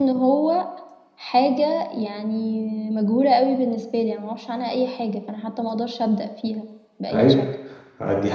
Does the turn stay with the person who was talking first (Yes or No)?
No